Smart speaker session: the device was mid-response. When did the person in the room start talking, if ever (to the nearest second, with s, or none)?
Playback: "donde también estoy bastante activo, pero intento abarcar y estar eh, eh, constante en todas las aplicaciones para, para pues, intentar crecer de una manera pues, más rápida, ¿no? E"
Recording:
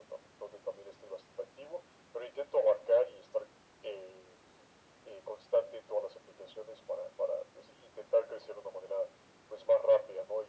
none